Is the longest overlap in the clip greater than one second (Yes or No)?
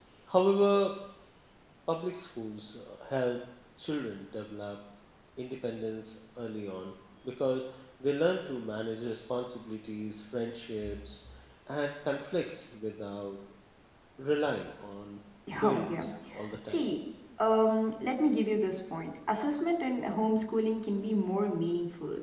No